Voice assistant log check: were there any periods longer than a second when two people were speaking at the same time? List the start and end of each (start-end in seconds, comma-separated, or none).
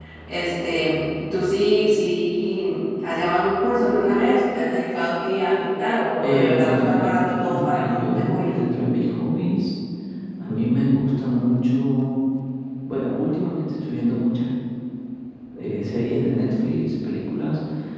6.2-8.5